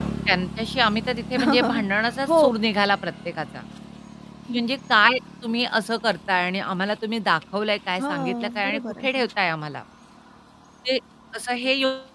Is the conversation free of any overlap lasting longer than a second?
No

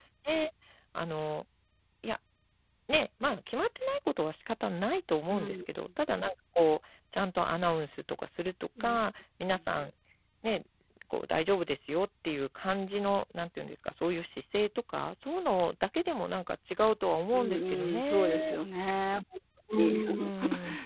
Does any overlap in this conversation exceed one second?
Yes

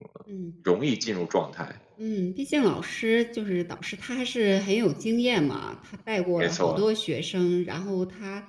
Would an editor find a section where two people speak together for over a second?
No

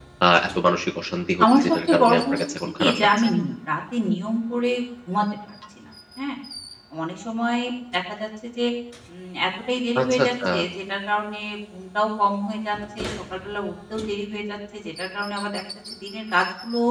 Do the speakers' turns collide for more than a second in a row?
Yes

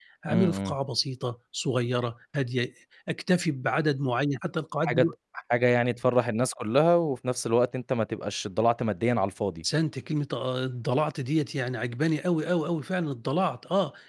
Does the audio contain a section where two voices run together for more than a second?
No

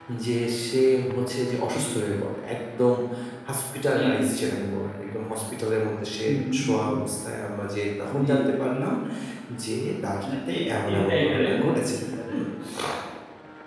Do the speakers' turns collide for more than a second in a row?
Yes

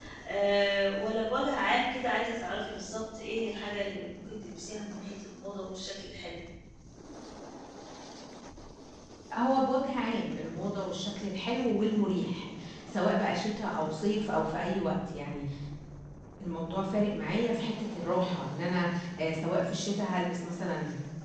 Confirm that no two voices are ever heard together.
Yes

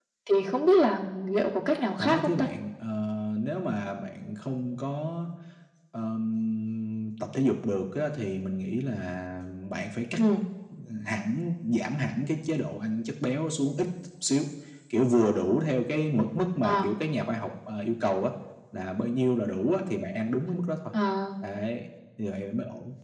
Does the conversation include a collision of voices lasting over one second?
No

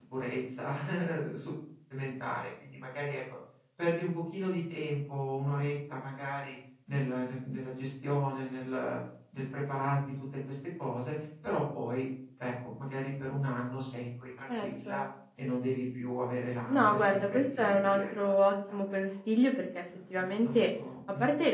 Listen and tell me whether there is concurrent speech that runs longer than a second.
Yes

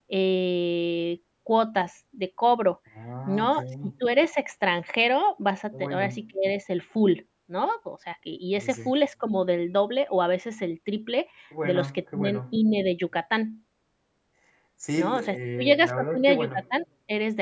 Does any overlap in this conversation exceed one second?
Yes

